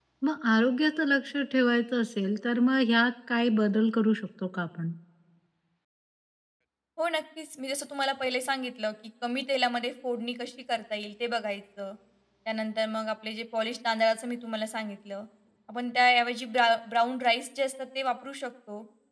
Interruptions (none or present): none